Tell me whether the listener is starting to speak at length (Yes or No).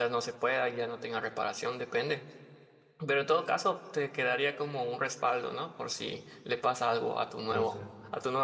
No